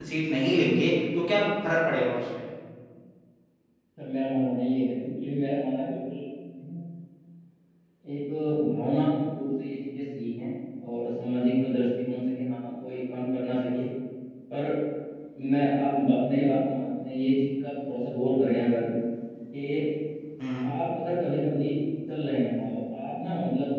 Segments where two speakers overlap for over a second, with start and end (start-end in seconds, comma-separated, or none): none